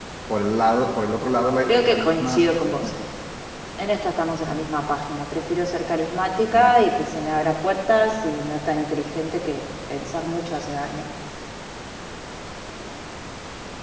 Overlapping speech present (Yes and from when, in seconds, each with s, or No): Yes, from 1.6 s